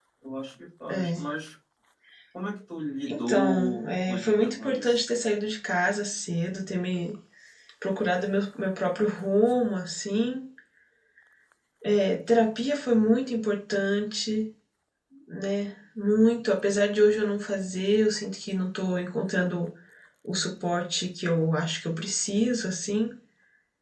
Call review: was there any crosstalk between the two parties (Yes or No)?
Yes